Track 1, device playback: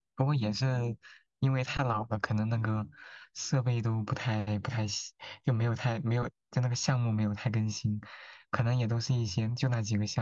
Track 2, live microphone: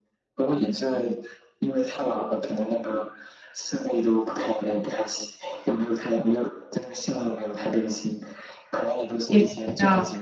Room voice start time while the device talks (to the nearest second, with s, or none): 9 s